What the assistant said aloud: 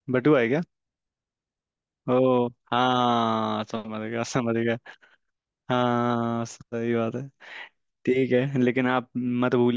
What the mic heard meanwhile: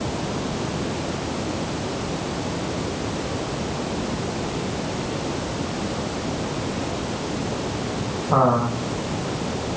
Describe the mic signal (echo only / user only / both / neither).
user only